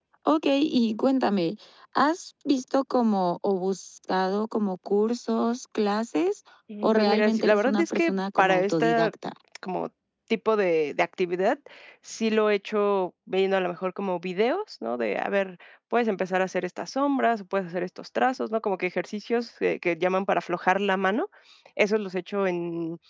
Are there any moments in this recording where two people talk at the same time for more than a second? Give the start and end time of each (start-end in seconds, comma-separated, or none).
6.8-9.1